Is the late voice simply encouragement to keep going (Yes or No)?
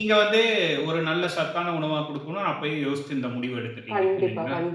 No